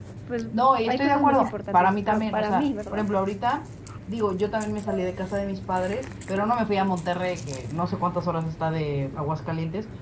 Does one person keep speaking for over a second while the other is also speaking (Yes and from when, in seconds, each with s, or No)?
Yes, from 0.5 s